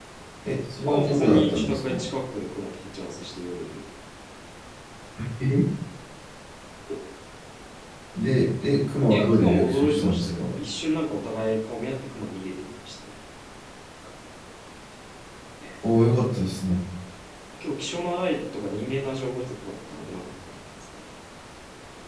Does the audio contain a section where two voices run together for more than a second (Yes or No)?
Yes